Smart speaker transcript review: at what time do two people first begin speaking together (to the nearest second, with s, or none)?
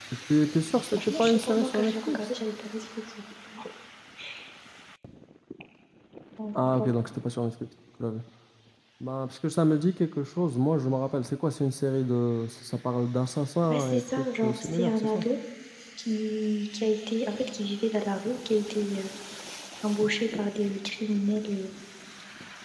1 s